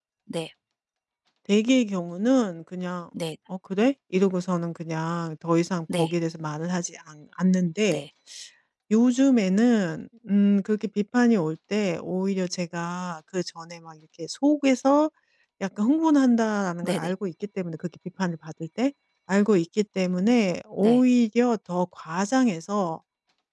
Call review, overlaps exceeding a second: none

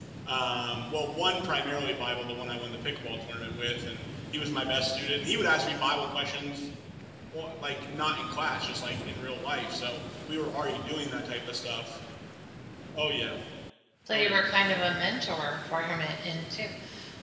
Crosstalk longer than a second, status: none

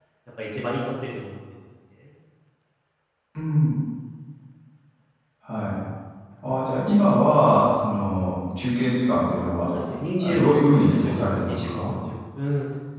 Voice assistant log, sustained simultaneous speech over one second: present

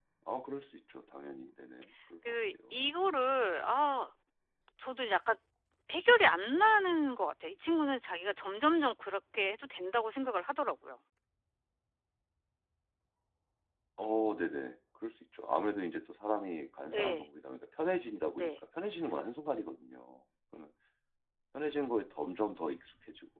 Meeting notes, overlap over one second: none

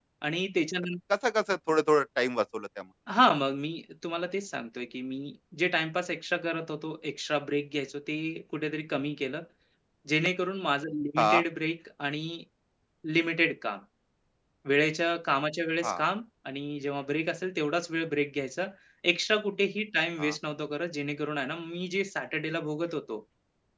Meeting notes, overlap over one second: none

